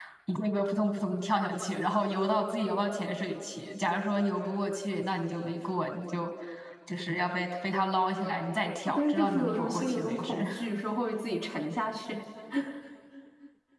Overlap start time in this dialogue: 9 s

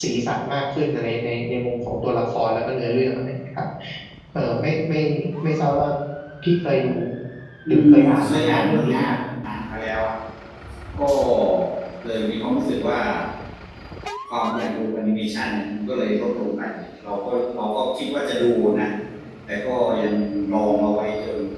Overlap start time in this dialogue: 8 s

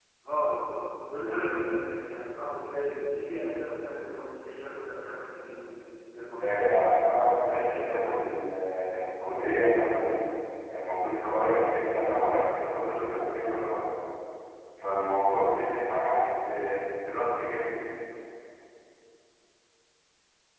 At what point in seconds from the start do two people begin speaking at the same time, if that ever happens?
6 s

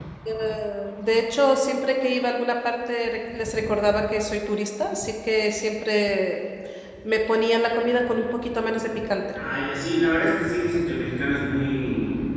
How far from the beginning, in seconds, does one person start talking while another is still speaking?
none

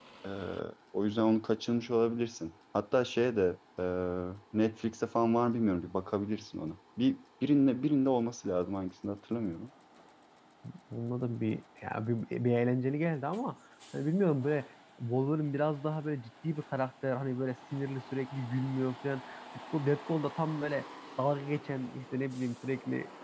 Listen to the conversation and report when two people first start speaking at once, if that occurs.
none

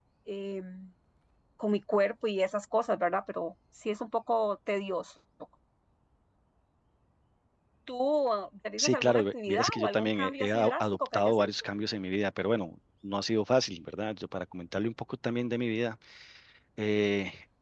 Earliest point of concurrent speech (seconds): 9 s

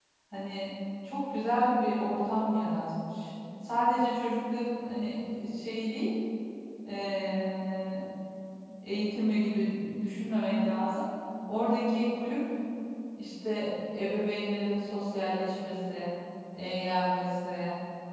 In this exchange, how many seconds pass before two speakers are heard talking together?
none

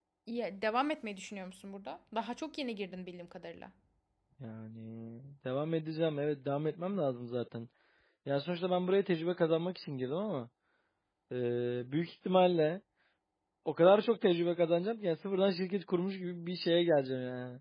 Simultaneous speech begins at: none

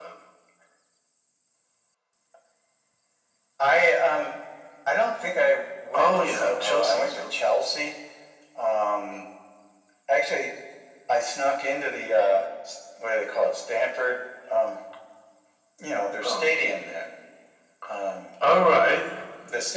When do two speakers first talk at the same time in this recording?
6 s

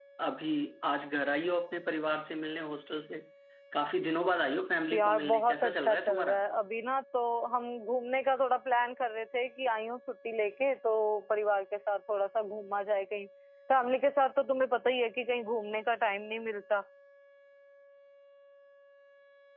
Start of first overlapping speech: 5 s

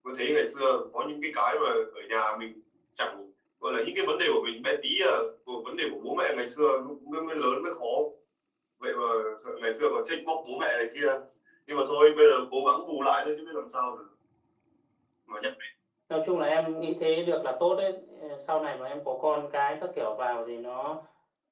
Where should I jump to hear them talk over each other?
none

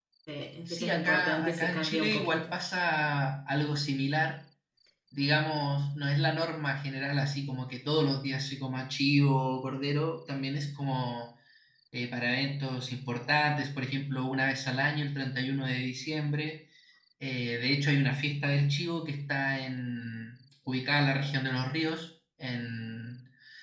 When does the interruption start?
1 s

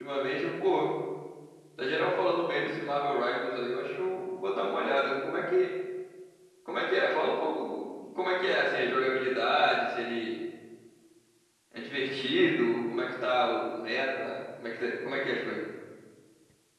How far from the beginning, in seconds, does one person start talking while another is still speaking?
none

